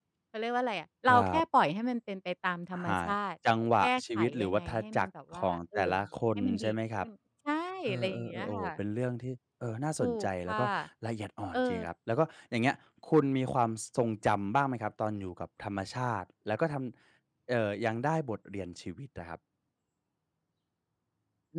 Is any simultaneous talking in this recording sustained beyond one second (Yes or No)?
Yes